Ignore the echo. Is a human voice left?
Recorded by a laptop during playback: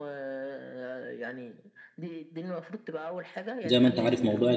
Yes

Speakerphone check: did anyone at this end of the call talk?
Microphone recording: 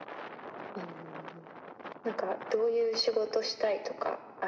No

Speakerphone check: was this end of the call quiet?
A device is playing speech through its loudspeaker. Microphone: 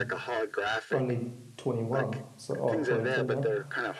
No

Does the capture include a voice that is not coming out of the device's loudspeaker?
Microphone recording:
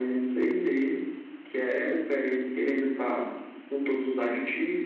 No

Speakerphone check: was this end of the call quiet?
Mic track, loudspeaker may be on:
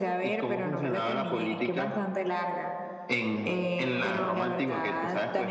Yes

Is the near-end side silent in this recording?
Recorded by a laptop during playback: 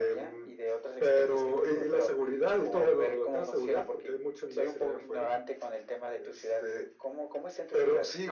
Yes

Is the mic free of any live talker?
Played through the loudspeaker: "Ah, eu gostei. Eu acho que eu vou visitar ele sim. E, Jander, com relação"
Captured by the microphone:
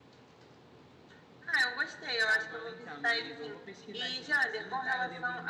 No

